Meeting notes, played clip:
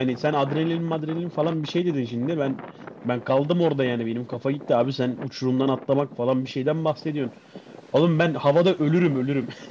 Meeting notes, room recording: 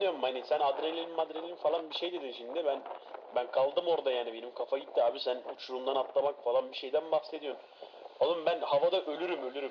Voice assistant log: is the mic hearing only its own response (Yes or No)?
Yes